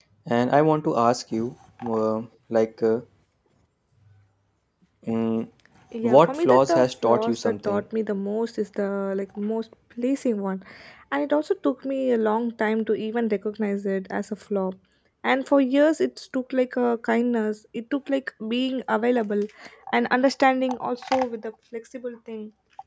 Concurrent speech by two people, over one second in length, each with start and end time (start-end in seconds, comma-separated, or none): 6.0-7.8